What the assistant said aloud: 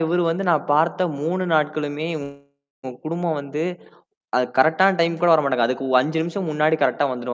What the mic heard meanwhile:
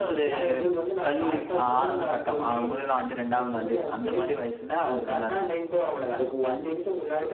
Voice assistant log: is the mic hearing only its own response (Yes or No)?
No